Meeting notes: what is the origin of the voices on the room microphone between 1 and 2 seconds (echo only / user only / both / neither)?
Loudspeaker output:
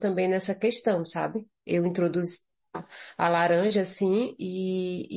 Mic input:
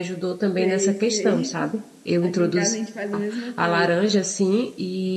both